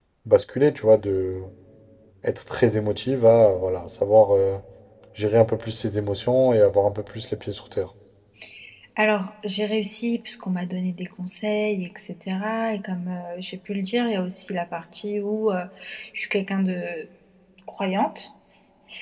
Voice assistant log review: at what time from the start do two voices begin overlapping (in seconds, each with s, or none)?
none